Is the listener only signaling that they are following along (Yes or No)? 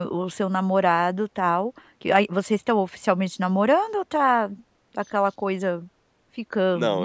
No